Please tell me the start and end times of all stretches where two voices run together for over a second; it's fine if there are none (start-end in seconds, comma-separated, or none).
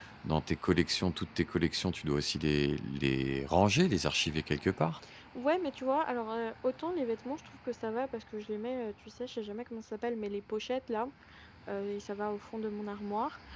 none